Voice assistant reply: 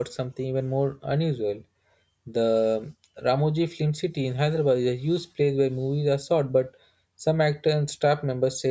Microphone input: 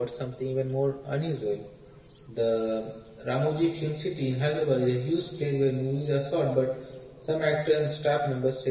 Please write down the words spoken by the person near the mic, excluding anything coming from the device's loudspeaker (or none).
none